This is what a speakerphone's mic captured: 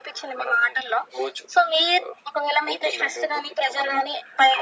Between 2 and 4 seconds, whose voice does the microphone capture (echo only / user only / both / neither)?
echo only